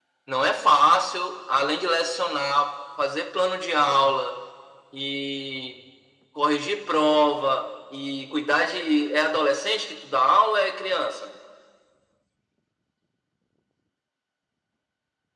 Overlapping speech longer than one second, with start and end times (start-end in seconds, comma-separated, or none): none